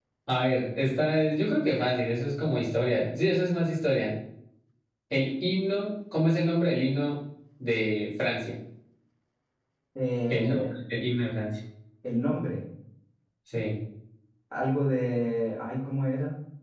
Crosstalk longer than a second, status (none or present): none